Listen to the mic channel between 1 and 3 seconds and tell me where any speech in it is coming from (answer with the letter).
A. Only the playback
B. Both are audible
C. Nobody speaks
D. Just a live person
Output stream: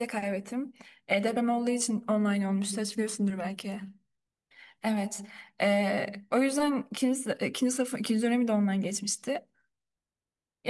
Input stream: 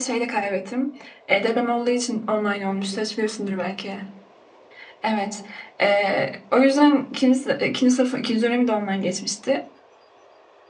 A